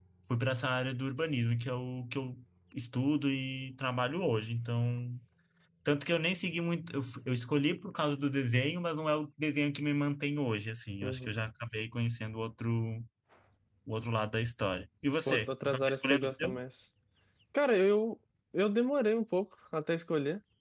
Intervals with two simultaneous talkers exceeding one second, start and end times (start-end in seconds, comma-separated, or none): 15.3-16.6